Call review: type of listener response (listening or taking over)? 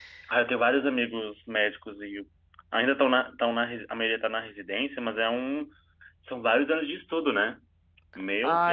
taking over